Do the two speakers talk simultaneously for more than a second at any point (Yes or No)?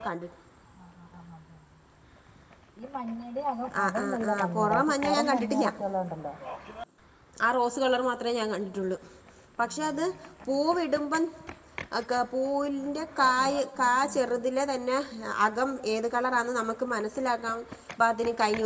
Yes